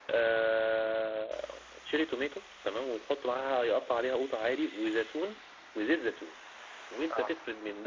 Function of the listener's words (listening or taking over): listening